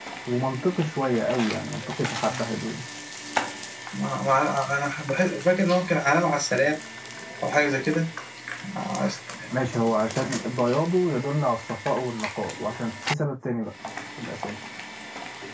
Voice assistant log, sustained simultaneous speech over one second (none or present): none